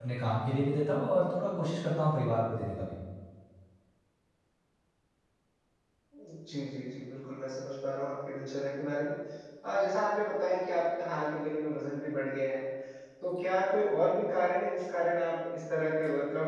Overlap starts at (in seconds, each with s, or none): none